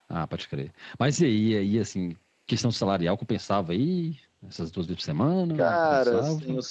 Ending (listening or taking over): taking over